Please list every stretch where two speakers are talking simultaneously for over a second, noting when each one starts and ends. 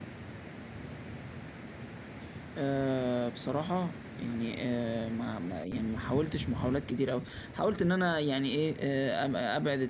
none

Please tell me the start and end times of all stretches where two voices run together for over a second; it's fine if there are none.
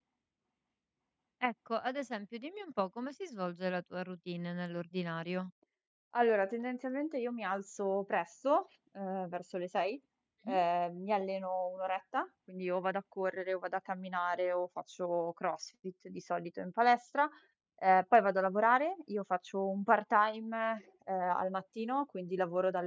none

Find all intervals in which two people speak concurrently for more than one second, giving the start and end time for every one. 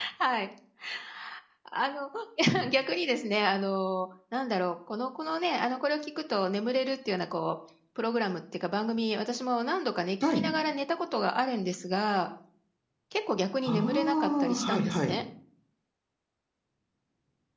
13.7-15.1

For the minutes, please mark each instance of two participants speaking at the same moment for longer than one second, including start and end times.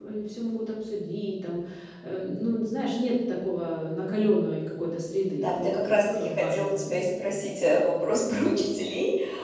5.4-7.0

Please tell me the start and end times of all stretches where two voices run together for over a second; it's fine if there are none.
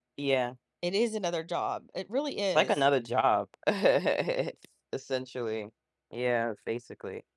none

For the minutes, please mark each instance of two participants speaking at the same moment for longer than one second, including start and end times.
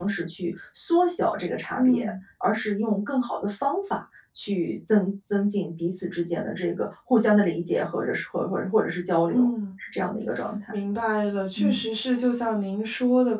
none

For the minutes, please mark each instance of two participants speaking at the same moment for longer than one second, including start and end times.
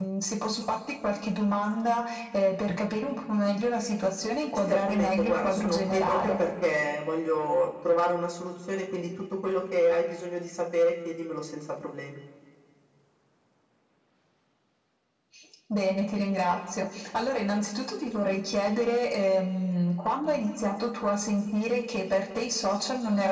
4.7-6.3

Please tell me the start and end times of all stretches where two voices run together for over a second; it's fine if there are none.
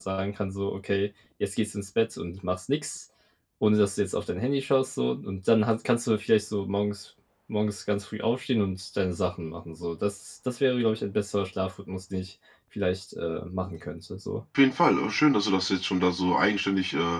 none

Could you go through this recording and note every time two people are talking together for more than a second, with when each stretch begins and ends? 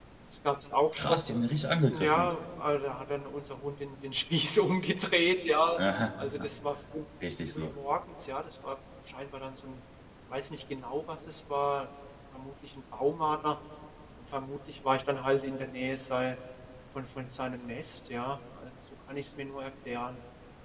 none

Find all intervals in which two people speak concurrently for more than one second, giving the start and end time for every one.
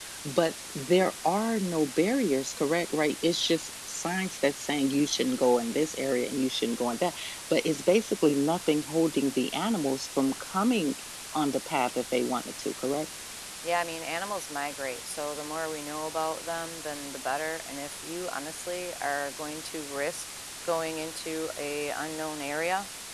none

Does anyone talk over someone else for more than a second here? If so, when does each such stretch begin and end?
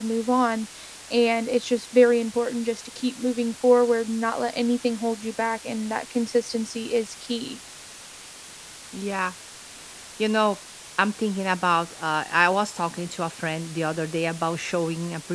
none

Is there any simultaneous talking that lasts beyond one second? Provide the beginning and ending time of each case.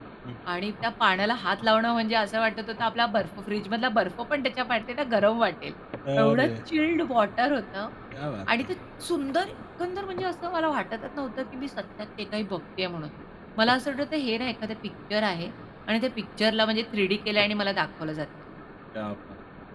none

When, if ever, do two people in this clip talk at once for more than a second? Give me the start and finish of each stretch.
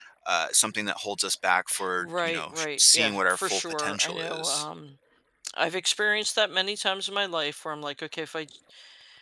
2.0-4.7

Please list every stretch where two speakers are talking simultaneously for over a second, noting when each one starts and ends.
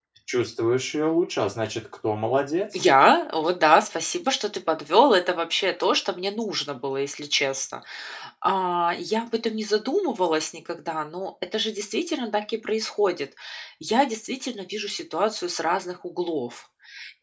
none

